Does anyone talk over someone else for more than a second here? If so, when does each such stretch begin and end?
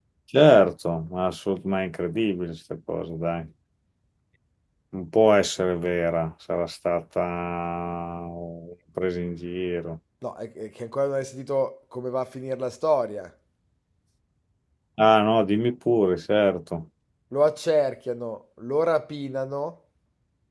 none

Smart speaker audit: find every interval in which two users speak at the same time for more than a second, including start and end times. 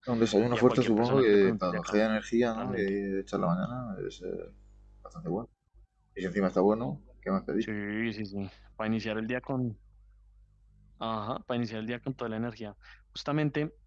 0.5-2.0

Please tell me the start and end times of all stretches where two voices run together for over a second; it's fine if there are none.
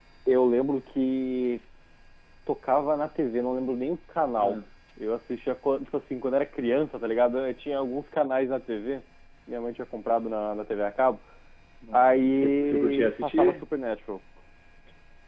11.9-13.6

